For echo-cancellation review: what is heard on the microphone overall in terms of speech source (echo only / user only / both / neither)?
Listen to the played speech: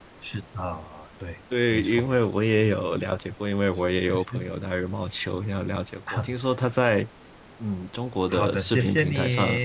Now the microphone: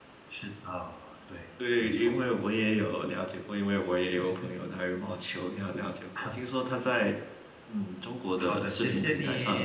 echo only